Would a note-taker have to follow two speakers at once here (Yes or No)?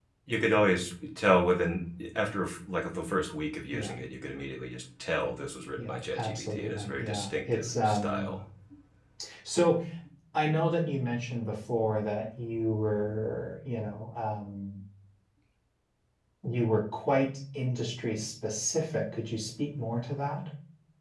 Yes